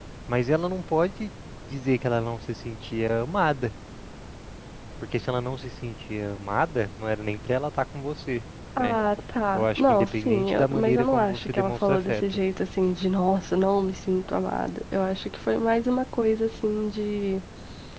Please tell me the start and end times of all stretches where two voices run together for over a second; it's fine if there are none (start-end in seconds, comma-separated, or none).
9.5-12.2